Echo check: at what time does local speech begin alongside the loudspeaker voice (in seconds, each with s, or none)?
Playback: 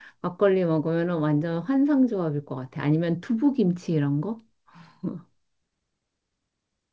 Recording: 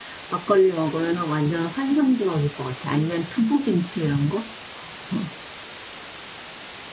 none